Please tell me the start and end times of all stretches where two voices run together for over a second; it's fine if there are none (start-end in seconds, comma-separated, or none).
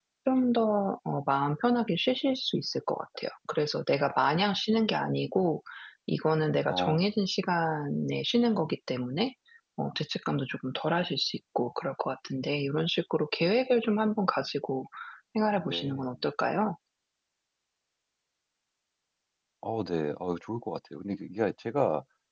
none